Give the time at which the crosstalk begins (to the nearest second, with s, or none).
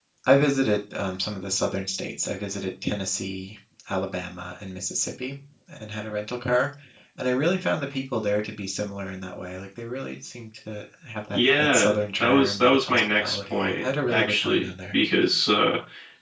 11 s